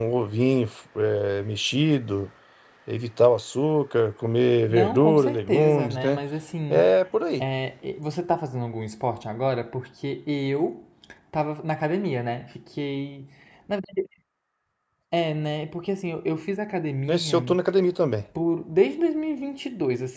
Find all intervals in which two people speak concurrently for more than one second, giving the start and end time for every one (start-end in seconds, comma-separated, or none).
4.7-6.2